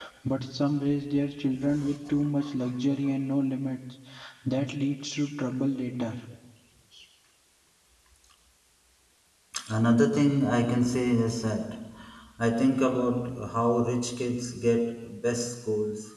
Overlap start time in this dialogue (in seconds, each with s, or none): none